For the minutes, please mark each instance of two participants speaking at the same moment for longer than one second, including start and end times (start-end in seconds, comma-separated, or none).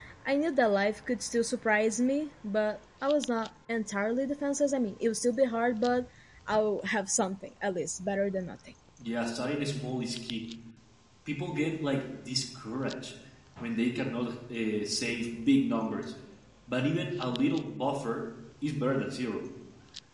none